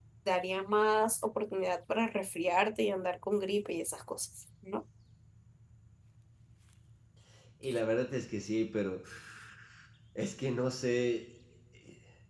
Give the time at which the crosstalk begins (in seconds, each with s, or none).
none